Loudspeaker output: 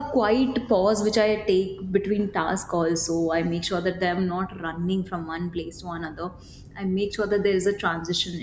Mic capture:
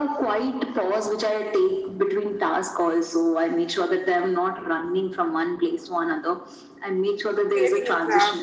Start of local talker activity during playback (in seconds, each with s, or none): 7.5 s